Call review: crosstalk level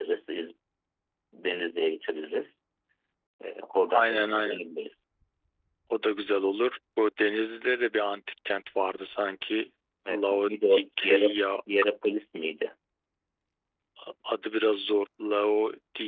present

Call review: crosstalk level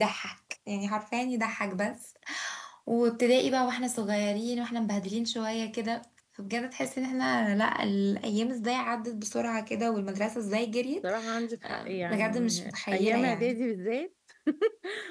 present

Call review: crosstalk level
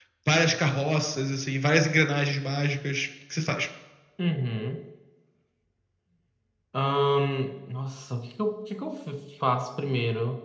none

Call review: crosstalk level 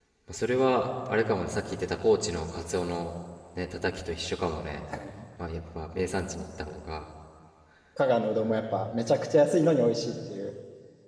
none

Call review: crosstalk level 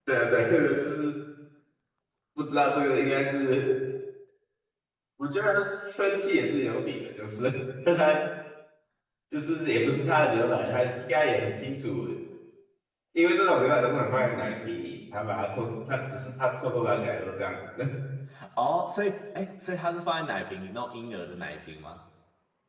none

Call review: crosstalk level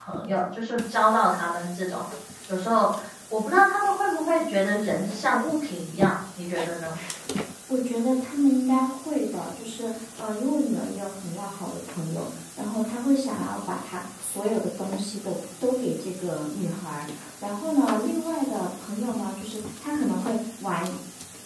none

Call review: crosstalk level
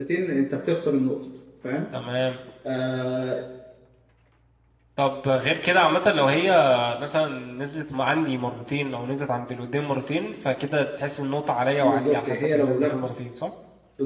present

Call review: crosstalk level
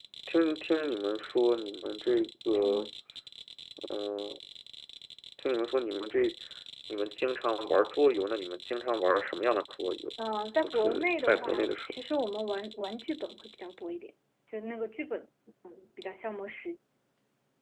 present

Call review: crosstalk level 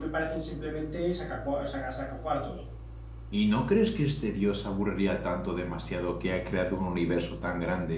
none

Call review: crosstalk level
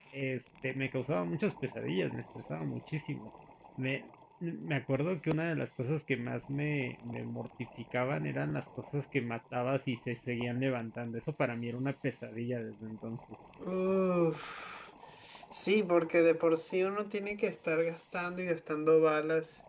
none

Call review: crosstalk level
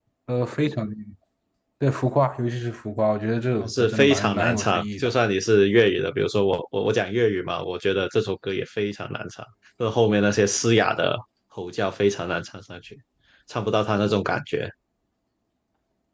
present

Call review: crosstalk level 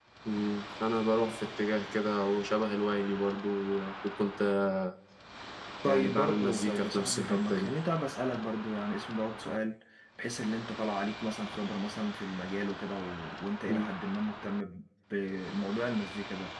present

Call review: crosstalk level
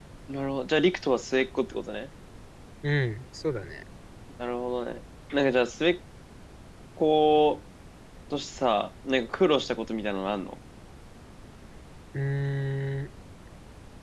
none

